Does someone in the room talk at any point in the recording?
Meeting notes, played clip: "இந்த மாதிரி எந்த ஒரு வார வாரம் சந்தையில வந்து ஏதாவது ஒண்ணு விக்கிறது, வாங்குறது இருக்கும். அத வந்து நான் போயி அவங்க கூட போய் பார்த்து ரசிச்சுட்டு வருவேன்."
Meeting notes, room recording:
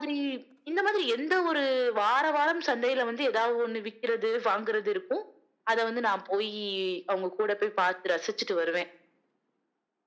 No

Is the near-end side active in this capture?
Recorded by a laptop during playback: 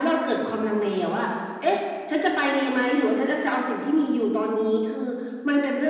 No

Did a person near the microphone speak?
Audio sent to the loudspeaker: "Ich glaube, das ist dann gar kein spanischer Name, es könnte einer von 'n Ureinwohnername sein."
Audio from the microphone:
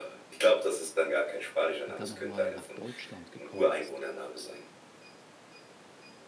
Yes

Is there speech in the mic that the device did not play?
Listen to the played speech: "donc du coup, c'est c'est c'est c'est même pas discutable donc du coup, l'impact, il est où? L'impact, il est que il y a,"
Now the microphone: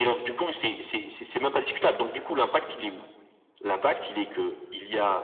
No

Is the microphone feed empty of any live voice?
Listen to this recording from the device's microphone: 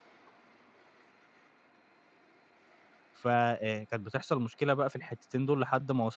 No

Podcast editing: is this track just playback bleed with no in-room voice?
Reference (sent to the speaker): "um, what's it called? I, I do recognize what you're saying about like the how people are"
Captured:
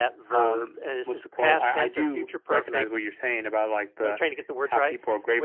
No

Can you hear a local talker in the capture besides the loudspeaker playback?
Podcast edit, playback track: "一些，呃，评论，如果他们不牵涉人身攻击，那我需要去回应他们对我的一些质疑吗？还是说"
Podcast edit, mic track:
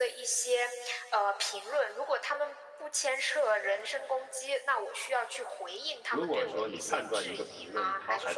Yes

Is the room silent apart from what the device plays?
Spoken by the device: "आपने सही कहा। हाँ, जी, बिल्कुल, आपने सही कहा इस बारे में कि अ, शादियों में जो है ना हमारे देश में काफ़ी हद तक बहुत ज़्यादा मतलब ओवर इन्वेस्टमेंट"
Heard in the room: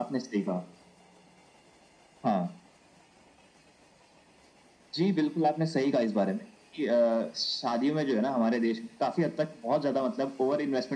Yes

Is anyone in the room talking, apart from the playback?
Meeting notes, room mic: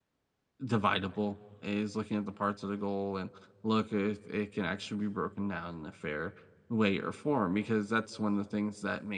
Yes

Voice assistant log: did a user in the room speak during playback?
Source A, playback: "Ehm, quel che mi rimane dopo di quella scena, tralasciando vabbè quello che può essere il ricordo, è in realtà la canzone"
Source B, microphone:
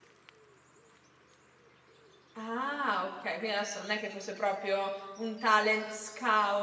Yes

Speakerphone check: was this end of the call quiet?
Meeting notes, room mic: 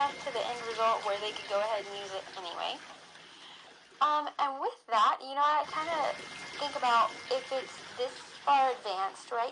Yes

